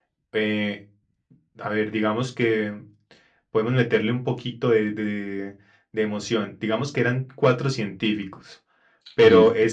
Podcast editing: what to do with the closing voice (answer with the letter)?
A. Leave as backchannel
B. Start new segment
A